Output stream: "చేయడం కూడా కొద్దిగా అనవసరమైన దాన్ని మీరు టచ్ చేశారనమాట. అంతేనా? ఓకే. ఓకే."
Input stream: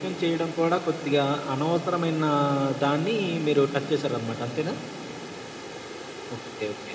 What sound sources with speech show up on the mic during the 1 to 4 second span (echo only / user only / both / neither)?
echo only